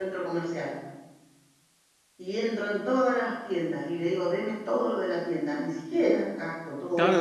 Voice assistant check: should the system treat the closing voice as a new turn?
Yes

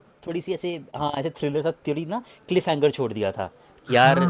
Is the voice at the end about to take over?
No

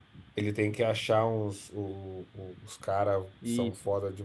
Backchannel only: Yes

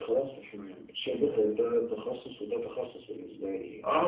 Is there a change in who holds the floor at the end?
Yes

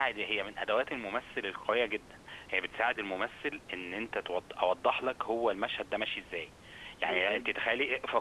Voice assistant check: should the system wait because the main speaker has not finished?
Yes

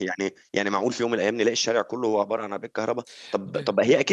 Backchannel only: Yes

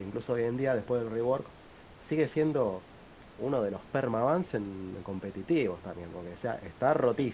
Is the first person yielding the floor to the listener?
No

